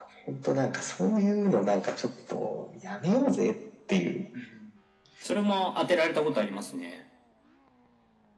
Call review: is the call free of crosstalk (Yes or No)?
Yes